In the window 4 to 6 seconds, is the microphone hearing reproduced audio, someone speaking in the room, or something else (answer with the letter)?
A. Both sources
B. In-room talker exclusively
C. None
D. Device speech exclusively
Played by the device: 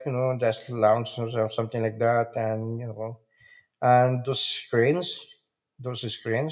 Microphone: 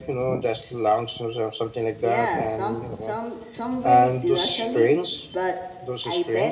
A